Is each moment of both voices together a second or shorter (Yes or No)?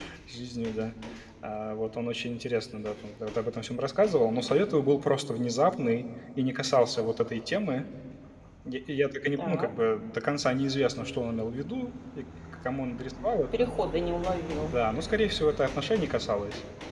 Yes